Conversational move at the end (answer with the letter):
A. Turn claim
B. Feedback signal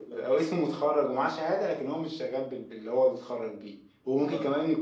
B